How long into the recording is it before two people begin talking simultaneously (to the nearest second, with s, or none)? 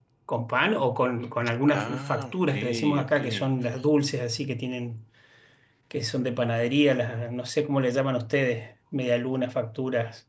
2 s